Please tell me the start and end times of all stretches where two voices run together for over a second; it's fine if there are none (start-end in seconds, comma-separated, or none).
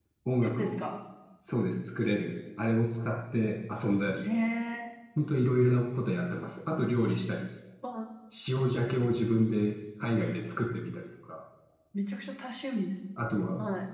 none